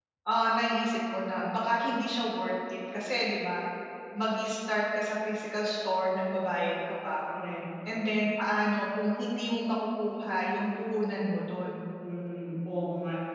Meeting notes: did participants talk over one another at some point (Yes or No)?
No